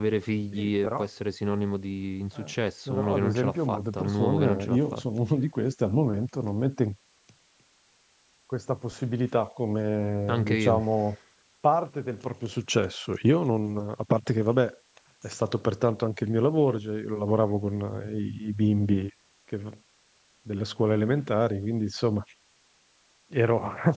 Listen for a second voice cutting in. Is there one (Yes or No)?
Yes